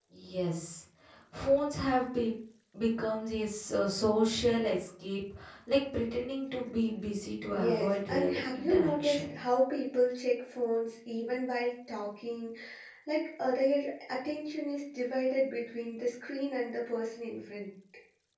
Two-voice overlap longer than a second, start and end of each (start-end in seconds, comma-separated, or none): 7.5-9.4